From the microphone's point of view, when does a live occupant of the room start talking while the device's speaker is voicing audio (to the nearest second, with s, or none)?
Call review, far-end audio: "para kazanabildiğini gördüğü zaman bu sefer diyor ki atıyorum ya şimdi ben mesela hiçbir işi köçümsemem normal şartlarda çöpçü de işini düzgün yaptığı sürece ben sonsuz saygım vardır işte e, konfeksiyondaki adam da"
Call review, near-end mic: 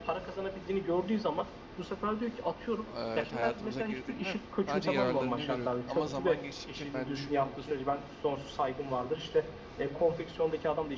3 s